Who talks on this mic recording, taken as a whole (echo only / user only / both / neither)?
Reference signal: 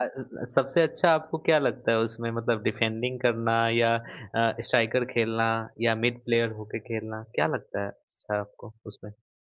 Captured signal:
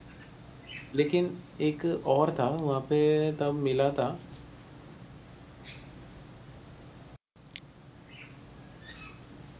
user only